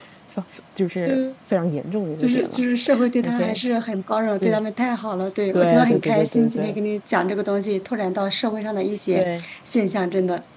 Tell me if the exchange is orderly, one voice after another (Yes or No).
No